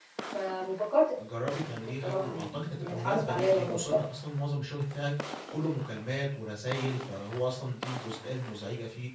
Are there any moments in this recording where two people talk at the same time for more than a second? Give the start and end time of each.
2.0-4.0

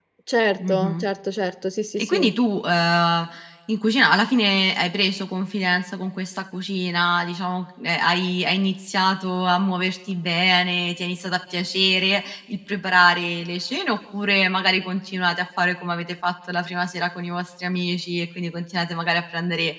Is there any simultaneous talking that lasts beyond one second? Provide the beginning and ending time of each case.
none

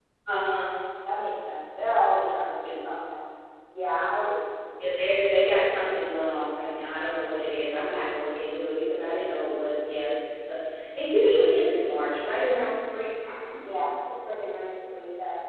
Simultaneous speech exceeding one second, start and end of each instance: none

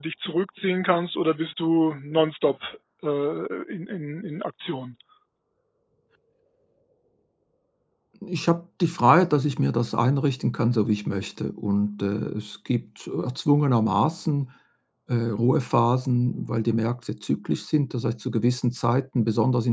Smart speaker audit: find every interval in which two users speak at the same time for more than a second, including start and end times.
none

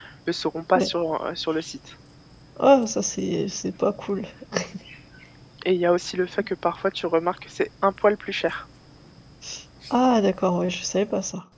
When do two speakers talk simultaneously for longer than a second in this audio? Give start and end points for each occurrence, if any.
none

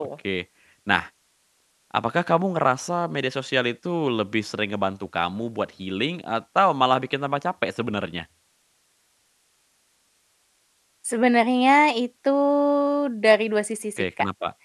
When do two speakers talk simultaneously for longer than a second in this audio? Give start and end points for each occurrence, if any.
none

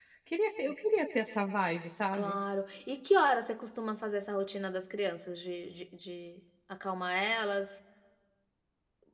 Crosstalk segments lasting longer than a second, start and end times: none

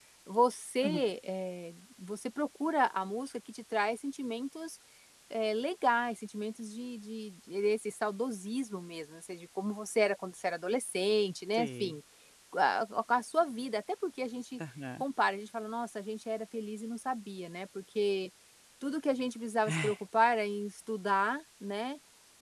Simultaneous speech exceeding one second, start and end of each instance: none

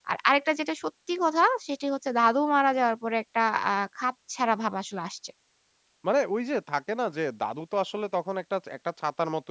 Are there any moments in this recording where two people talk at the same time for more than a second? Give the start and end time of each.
none

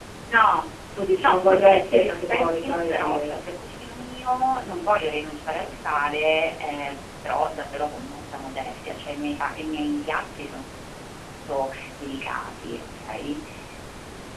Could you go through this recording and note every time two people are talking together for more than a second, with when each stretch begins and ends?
1.2-3.3

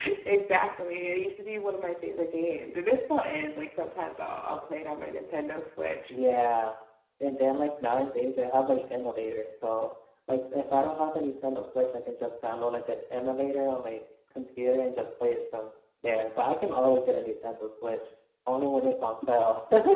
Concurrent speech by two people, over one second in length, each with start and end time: none

